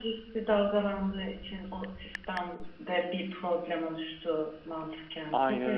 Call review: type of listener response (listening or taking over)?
taking over